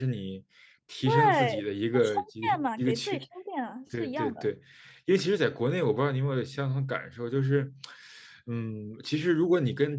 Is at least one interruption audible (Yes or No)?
Yes